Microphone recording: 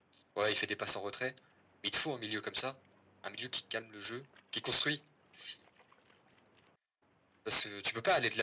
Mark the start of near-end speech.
none

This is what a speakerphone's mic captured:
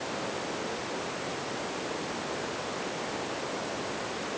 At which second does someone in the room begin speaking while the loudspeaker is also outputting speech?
none

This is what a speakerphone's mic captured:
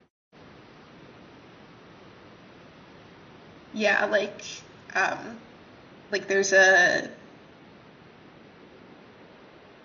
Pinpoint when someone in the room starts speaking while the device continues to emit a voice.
4 s

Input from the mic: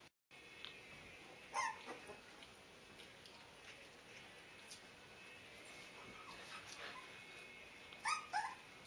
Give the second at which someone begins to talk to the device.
none

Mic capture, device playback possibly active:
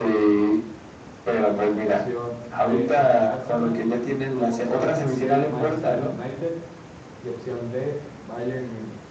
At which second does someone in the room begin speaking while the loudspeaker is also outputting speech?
2 s

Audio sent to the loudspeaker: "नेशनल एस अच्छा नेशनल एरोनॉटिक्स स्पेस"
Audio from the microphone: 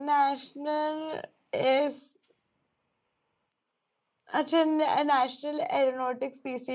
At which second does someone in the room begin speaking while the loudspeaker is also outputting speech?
none

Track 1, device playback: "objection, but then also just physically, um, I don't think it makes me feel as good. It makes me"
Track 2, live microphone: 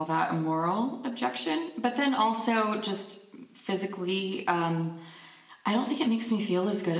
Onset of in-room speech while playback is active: none

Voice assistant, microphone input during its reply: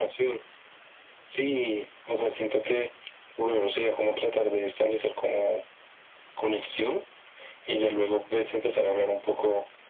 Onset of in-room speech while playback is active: none

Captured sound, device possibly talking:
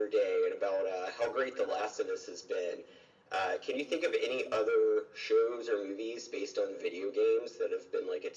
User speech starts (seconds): none

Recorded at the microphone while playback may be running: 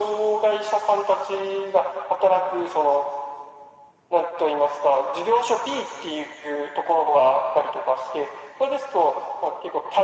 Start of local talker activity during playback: none

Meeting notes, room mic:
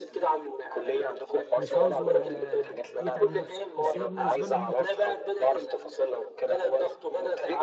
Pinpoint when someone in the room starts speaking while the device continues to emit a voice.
2 s

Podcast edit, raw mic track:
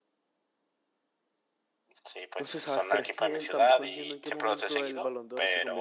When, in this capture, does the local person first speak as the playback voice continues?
2 s

